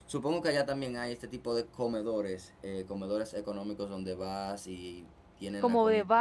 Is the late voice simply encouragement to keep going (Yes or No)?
No